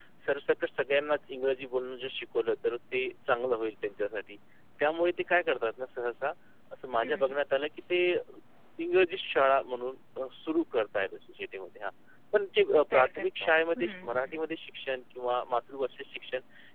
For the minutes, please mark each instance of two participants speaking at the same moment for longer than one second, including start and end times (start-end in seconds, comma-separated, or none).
12.8-14.5